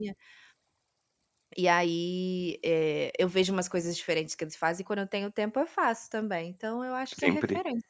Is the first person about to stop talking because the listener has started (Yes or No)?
Yes